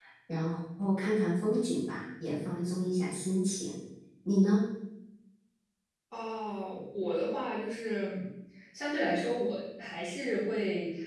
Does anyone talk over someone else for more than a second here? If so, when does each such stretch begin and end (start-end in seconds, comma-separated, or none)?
none